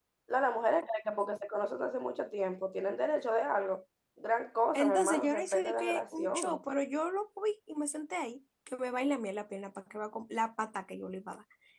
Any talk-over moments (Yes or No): Yes